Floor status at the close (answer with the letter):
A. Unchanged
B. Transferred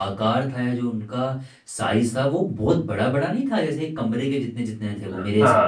B